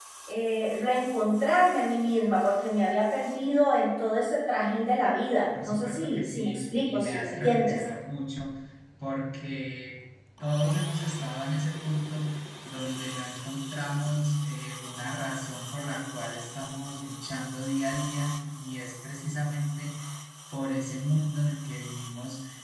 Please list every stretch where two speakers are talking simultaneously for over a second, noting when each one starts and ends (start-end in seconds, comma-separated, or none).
5.6-7.8